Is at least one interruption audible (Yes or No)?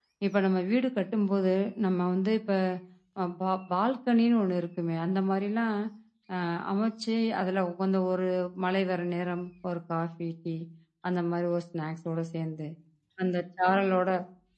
No